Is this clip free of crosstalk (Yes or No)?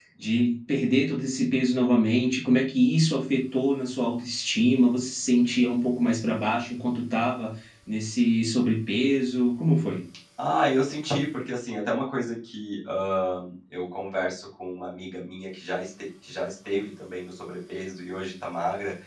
Yes